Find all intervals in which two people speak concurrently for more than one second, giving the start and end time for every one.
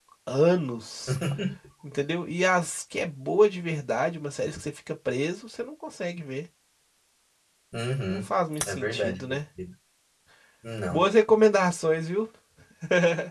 8.1-9.4

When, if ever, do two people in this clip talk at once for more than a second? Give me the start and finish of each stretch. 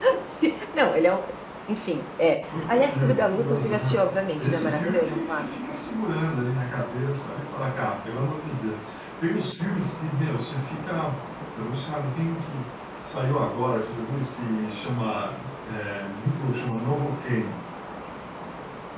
2.5-5.5

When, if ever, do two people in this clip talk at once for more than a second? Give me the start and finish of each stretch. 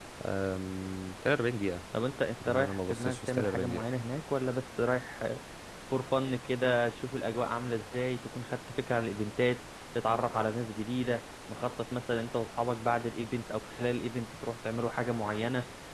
2.4-3.8

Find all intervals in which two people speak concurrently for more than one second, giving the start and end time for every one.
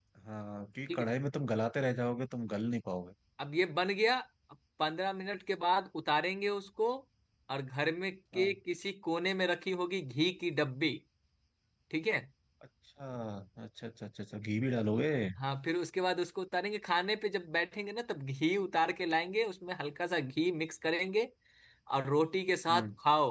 none

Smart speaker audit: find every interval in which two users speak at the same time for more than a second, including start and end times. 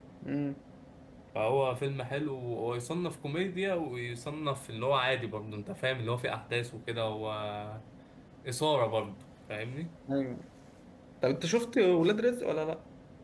none

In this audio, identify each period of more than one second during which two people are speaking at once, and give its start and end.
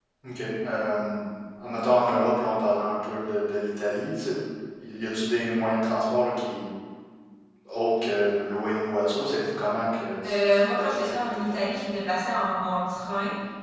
10.2-11.7

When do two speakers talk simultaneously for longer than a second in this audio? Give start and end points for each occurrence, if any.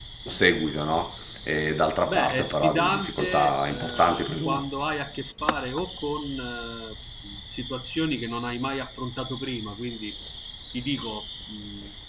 2.1-4.6

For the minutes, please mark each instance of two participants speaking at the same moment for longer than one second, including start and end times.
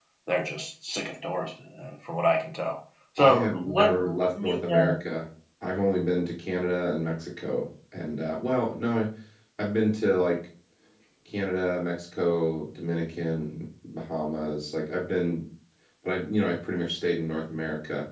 3.2-4.8

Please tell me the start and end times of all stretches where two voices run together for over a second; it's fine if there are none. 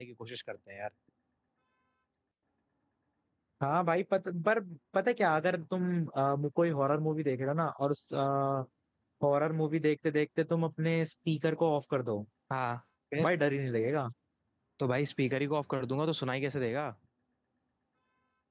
none

